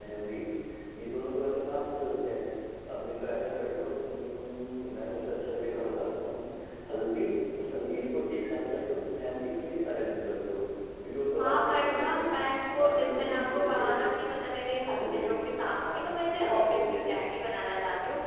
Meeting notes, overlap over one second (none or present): present